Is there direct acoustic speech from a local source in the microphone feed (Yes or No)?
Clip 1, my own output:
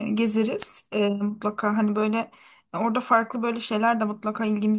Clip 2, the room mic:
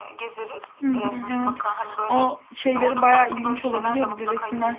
Yes